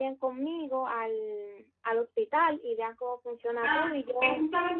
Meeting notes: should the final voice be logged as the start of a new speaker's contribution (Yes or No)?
Yes